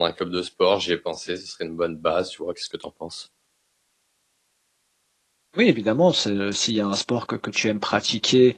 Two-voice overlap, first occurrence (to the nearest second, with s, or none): none